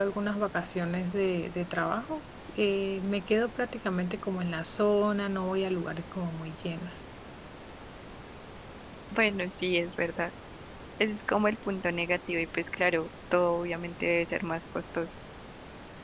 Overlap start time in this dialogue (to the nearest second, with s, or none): none